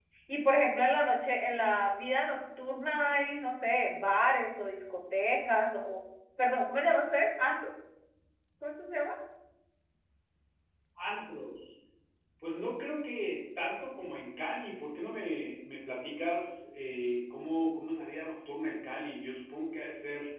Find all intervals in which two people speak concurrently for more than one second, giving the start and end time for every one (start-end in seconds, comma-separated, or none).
none